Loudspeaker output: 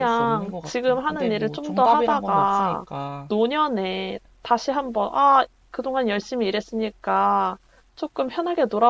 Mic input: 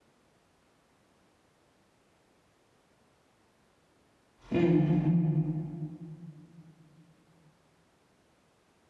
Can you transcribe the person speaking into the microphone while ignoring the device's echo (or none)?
음,